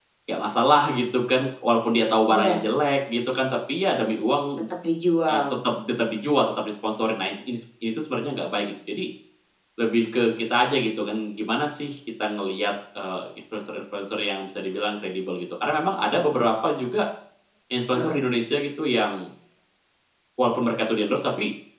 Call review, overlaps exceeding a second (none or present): none